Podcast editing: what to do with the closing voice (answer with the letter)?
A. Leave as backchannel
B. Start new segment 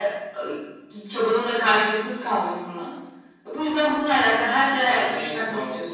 B